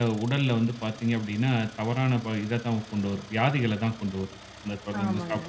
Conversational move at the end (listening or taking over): listening